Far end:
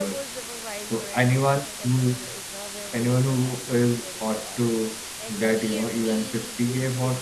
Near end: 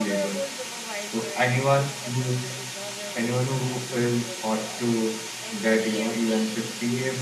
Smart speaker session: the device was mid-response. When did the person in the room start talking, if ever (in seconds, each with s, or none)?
none